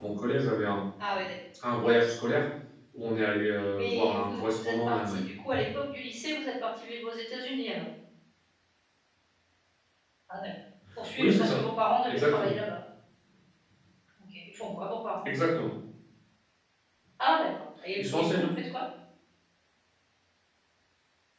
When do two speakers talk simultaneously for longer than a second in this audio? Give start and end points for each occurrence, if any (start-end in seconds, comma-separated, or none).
3.8-5.2